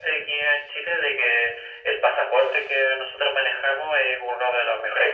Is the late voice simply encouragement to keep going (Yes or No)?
Yes